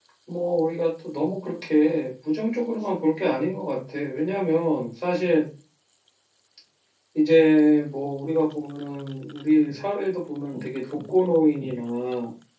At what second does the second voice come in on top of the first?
none

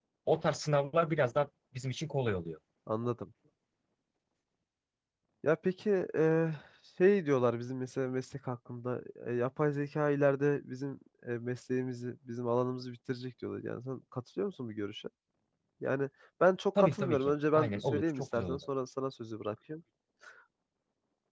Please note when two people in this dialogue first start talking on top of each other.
16.8 s

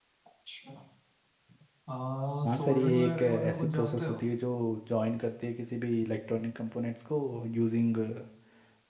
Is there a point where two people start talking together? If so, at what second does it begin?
2.5 s

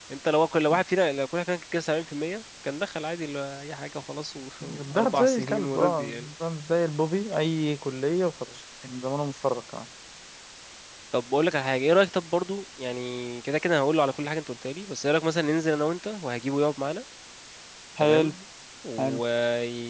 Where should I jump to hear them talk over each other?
4.6 s

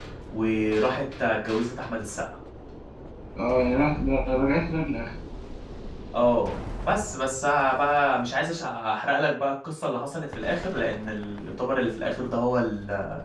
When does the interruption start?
none

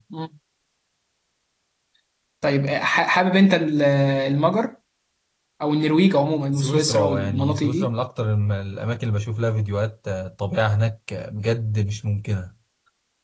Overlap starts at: 6.5 s

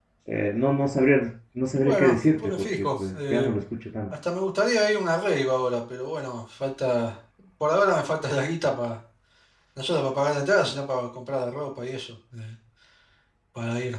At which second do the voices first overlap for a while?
1.8 s

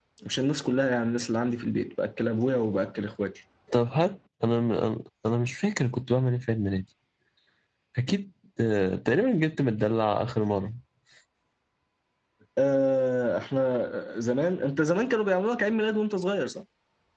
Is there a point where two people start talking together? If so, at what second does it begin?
none

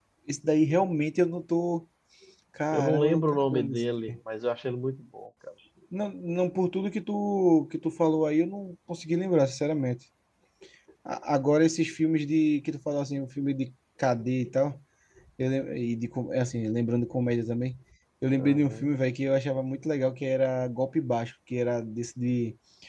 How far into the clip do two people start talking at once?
2.7 s

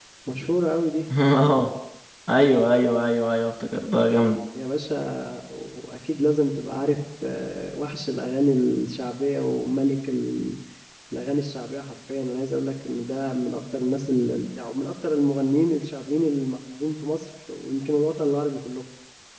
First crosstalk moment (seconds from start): none

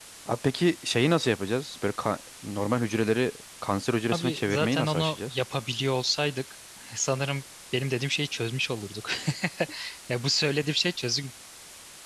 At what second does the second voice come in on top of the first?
4.1 s

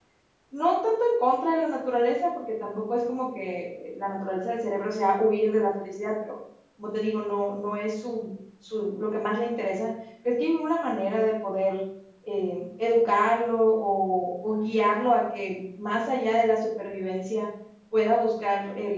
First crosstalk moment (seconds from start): none

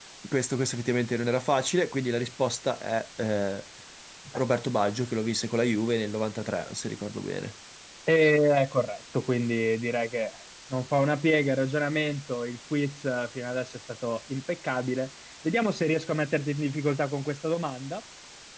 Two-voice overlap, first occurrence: none

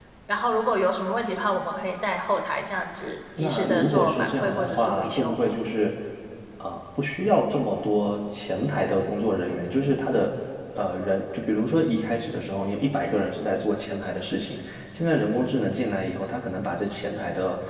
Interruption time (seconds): 3.4 s

